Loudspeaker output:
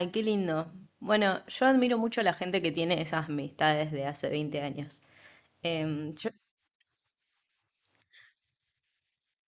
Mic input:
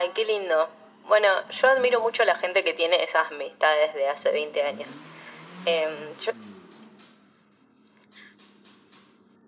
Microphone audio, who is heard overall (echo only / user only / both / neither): echo only